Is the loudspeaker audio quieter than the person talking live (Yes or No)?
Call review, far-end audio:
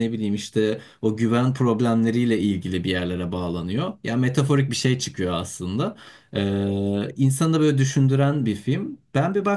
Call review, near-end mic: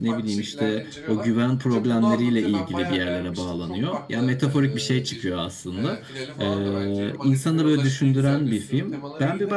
No